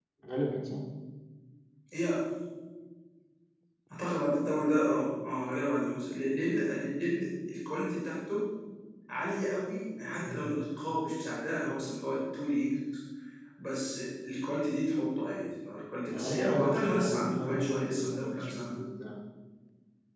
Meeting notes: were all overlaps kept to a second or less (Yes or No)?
No